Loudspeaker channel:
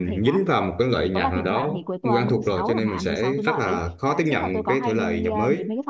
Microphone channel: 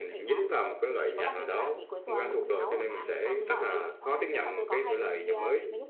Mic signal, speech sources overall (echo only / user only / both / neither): both